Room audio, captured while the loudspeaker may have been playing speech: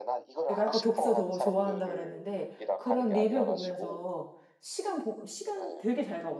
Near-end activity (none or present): present